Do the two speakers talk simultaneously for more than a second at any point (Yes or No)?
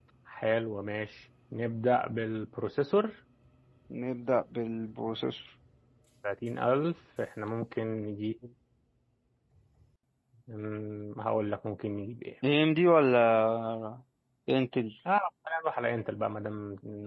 No